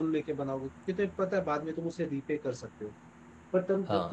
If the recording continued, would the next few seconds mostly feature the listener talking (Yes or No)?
No